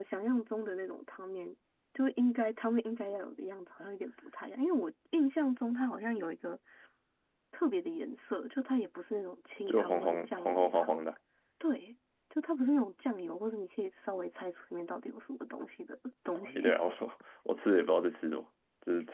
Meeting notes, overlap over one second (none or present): present